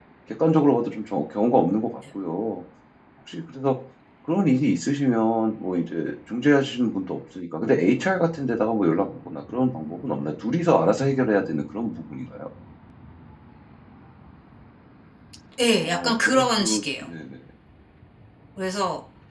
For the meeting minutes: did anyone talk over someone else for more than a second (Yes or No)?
Yes